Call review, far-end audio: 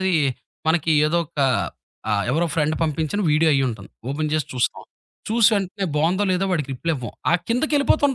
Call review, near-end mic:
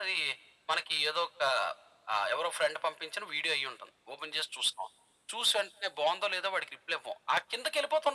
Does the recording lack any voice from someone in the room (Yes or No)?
Yes